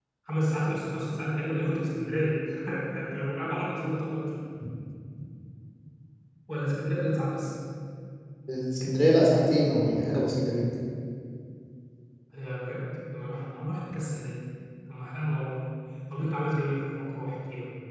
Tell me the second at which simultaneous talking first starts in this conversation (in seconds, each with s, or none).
none